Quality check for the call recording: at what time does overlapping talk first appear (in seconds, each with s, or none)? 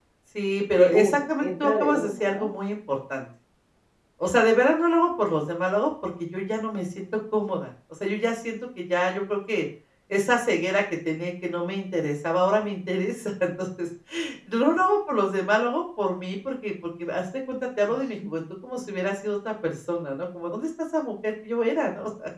0.7 s